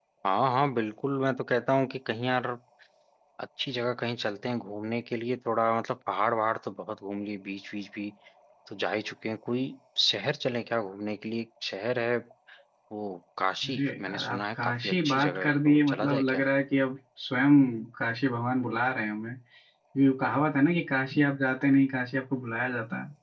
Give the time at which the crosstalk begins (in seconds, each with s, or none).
13.6 s